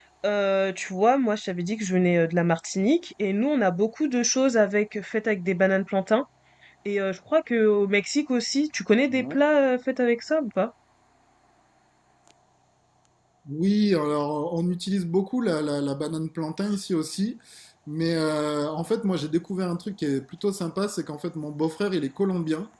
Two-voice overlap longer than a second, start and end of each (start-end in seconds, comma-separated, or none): none